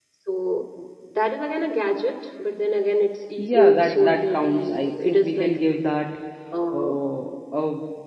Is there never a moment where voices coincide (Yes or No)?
No